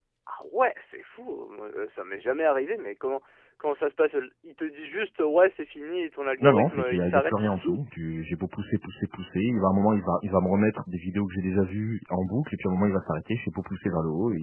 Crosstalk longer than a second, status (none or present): present